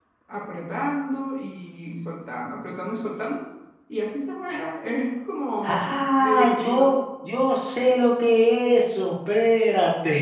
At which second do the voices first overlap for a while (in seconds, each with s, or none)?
5.6 s